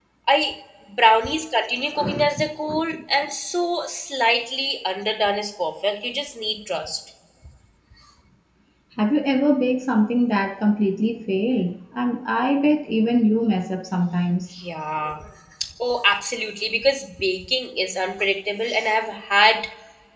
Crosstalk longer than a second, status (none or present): none